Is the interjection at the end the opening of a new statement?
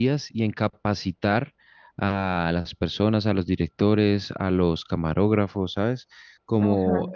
No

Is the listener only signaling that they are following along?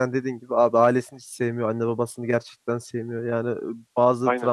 Yes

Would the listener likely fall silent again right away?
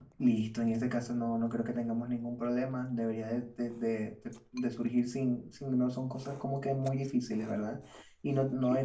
Yes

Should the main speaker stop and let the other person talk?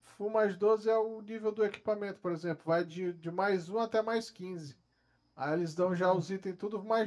No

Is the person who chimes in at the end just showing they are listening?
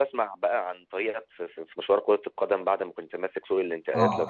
No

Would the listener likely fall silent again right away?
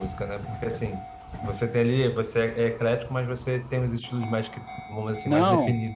No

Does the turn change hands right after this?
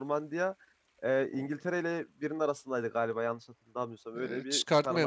Yes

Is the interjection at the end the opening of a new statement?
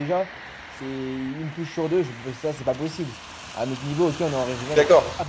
Yes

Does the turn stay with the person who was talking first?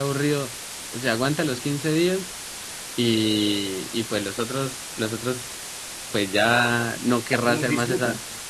Yes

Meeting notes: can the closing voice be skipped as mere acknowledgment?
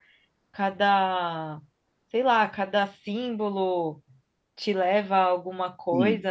No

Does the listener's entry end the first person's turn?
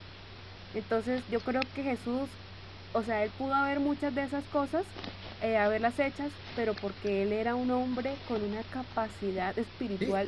Yes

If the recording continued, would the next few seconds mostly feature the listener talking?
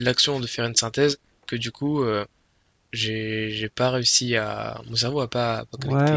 Yes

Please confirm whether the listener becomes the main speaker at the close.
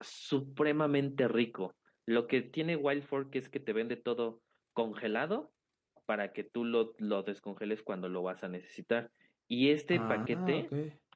No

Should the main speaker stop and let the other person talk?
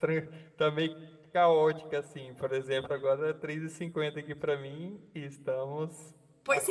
Yes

